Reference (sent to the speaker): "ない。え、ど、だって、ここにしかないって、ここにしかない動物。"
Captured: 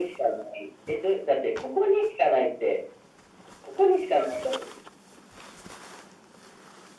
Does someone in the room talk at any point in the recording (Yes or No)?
No